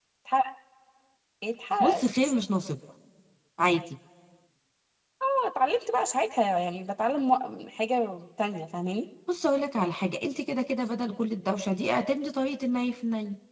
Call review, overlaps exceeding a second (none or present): none